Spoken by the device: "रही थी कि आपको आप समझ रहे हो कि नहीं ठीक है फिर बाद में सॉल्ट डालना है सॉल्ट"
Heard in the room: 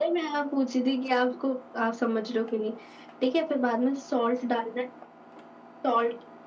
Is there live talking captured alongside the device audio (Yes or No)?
No